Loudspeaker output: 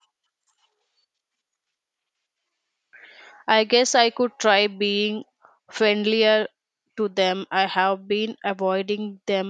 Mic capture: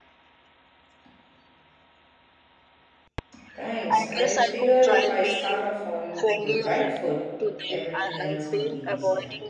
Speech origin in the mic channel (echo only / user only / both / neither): both